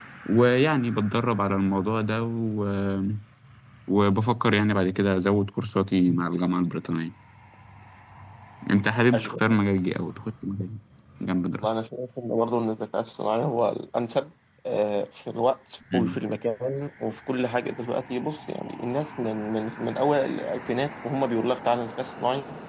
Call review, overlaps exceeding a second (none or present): none